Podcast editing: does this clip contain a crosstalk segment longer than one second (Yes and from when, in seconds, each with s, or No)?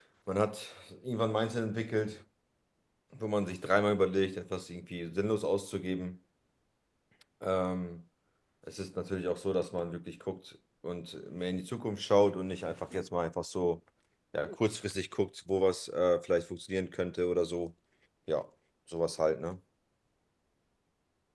No